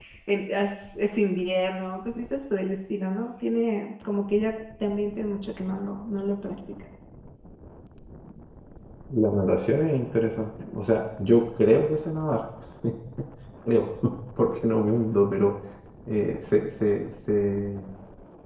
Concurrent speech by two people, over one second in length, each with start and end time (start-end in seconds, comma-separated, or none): none